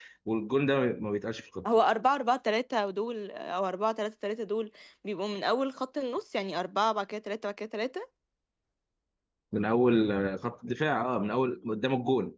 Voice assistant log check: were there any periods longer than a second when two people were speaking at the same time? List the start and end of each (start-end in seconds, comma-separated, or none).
none